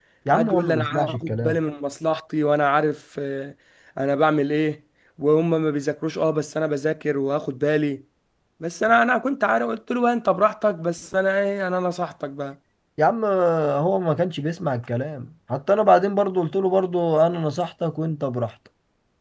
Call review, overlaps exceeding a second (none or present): present